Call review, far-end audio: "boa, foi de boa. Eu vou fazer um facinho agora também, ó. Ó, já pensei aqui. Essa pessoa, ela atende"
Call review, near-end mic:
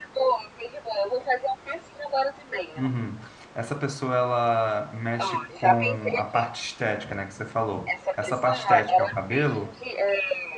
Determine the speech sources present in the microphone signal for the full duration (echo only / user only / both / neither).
both